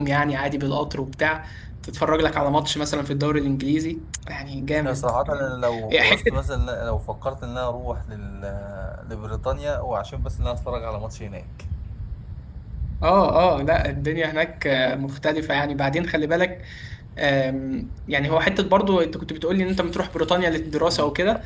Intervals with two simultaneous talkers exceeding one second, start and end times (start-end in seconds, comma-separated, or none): 4.8-6.4